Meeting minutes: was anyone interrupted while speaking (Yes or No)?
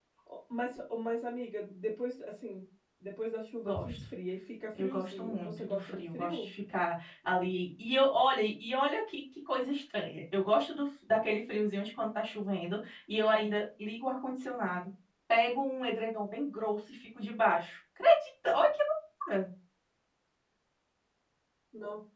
Yes